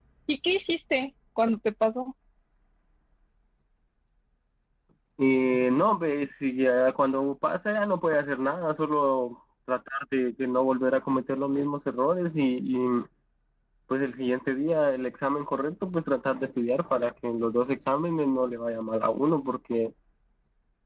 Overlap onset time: none

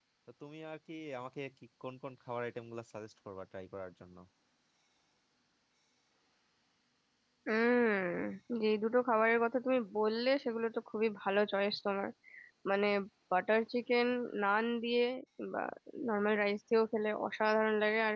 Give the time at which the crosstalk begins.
none

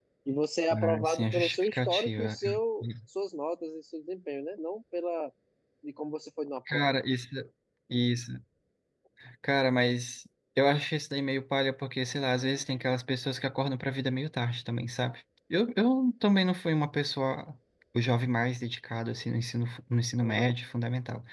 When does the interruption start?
0.8 s

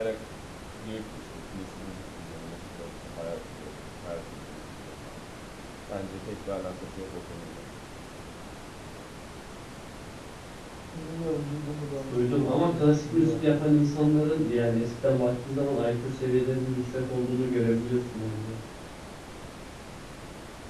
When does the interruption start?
12.1 s

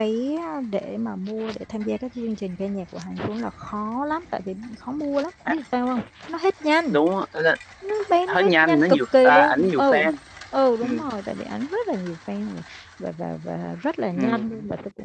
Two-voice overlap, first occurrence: 8.3 s

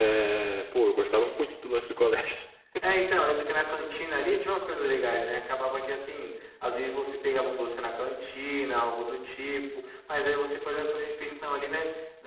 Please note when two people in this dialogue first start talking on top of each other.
none

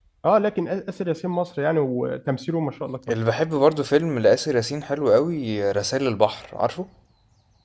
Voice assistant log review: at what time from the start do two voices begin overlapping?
none

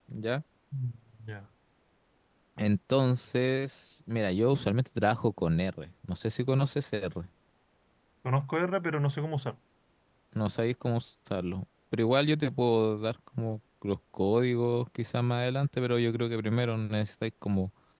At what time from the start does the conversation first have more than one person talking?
none

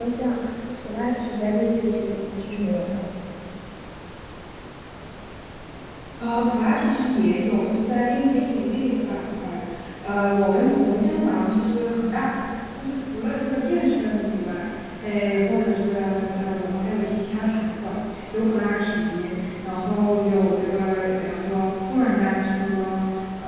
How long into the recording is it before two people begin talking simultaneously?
none

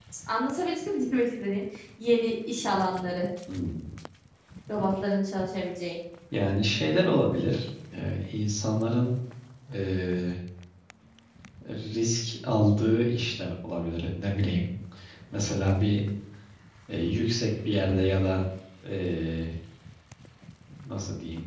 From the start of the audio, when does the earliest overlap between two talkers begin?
none

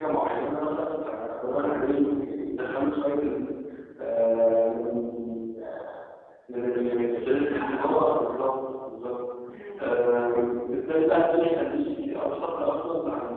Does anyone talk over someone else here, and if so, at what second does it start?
6.7 s

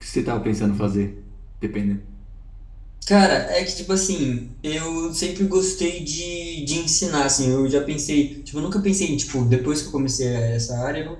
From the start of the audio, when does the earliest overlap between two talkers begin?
none

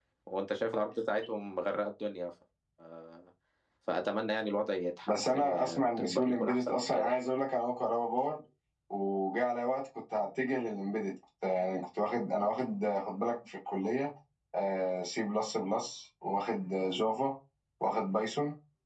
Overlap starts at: 5.1 s

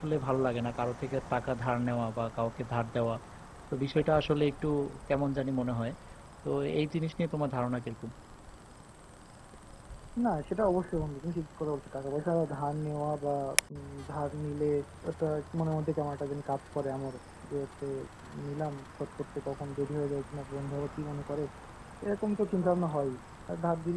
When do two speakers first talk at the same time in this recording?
none

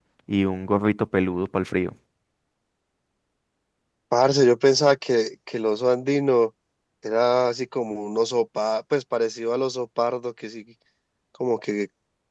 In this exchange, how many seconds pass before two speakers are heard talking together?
none

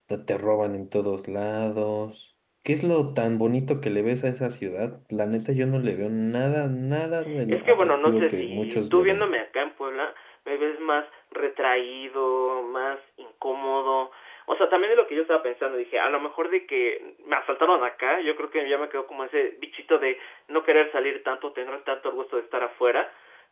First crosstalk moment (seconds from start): 7.5 s

